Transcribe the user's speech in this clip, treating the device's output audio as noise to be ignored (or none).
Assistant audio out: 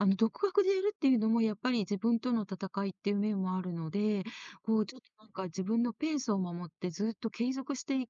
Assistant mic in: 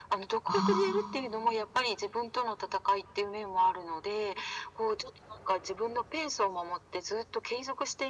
ああ、